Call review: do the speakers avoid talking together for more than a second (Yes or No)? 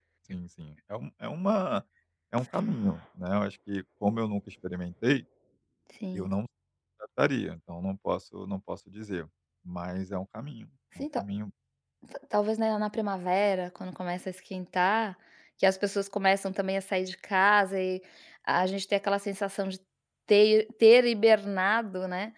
Yes